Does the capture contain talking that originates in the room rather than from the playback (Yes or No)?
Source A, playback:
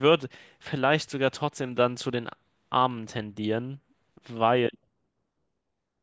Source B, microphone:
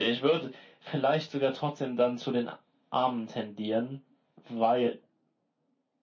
No